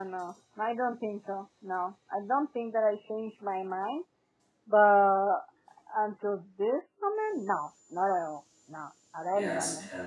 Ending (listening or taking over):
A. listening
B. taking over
B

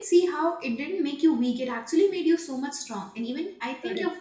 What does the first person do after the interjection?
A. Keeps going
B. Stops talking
A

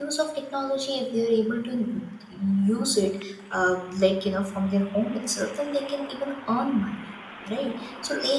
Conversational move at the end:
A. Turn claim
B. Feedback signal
B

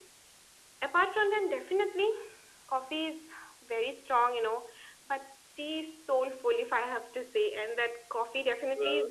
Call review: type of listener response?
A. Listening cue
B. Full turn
A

